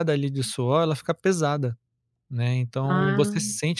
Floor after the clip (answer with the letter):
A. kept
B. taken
A